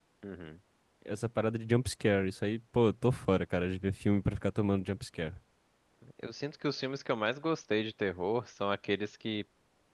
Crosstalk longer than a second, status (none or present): none